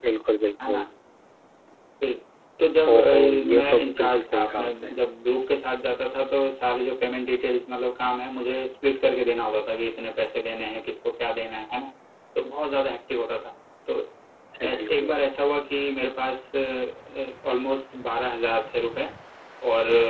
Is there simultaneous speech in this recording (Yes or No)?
Yes